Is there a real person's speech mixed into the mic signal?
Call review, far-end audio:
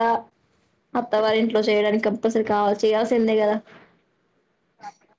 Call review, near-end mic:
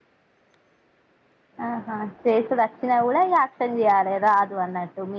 Yes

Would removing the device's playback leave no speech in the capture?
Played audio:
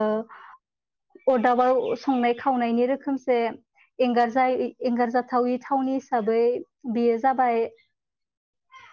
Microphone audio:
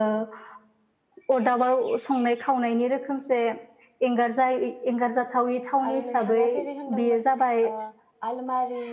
No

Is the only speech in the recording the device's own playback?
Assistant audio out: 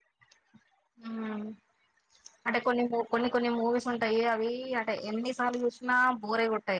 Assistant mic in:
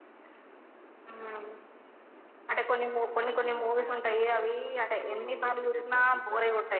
No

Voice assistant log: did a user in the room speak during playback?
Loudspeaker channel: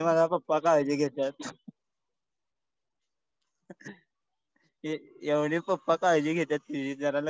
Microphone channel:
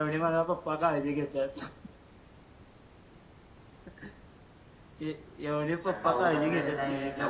Yes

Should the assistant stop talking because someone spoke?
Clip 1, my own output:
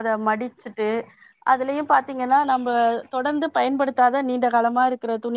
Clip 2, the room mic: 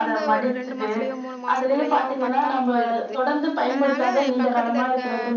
Yes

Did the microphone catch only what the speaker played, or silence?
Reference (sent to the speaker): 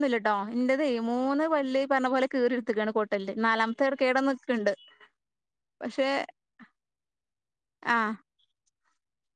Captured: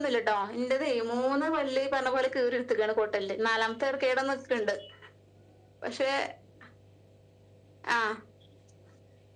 Yes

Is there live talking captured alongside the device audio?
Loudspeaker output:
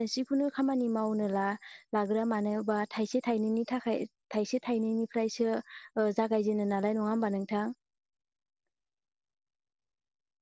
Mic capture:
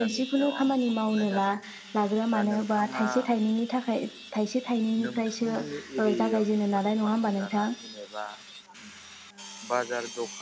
Yes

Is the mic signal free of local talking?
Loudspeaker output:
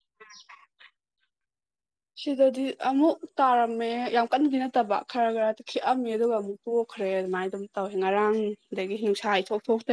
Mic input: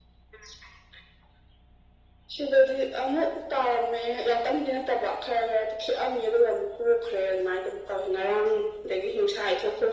Yes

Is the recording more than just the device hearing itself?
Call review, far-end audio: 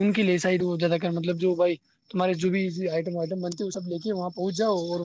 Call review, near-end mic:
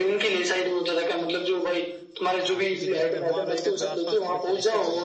Yes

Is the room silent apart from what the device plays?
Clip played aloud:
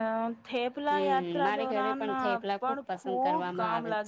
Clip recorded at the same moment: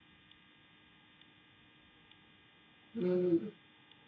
No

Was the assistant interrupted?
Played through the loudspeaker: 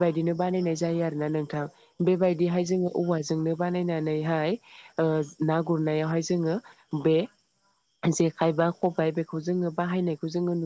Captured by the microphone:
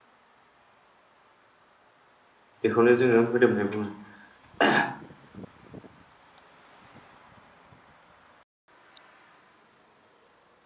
Yes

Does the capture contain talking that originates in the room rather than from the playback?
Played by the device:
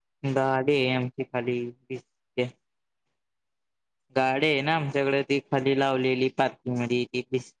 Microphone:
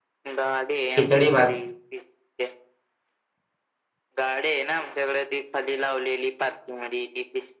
Yes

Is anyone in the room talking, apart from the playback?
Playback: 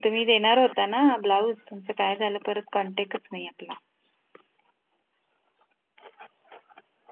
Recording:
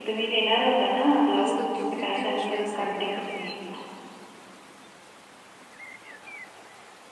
Yes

